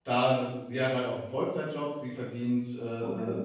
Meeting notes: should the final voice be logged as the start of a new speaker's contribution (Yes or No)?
No